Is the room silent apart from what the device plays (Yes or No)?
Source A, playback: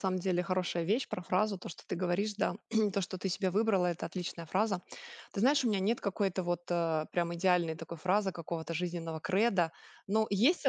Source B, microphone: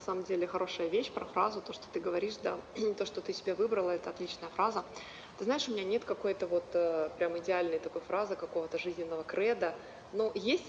Yes